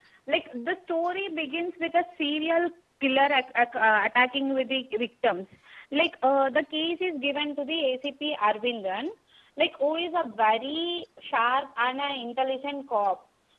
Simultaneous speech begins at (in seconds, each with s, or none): none